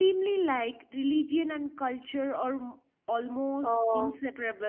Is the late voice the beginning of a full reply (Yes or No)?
Yes